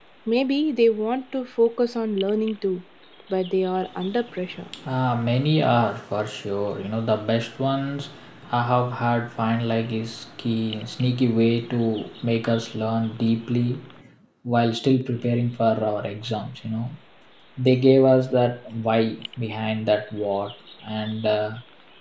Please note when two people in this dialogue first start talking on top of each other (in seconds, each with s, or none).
none